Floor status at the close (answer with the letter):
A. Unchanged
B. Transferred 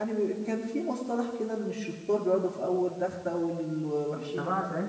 B